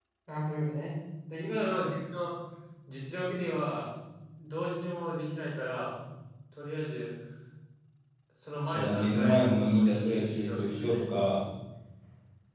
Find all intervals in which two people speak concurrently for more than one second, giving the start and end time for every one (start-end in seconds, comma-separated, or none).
8.8-11.0